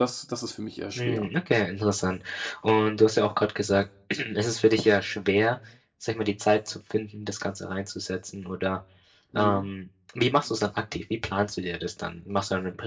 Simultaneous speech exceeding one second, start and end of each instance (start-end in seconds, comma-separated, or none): none